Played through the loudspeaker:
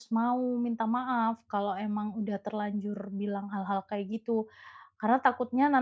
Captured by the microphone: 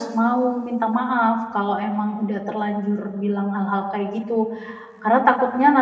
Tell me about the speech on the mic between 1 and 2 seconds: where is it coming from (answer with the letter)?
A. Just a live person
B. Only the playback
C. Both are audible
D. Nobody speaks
B